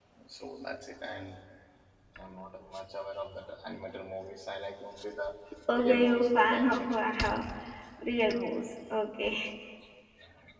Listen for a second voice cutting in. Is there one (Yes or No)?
Yes